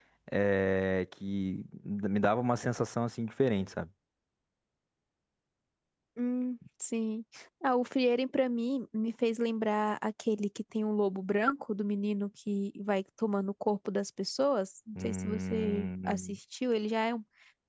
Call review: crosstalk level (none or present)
present